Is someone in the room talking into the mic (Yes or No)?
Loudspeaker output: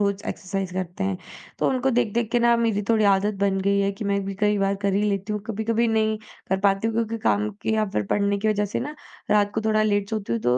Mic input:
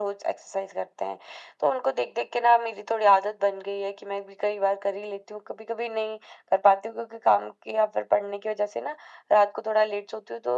No